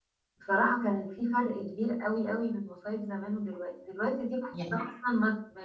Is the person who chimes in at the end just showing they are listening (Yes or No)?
Yes